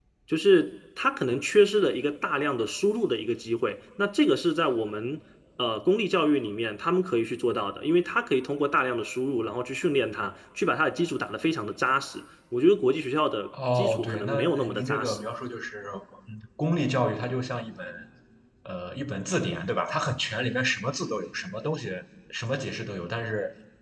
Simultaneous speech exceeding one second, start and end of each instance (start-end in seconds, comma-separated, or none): 13.8-15.2